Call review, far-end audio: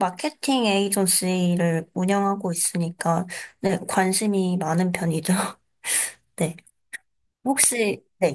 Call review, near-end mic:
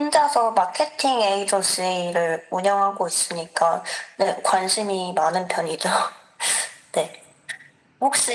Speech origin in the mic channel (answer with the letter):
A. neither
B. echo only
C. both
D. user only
B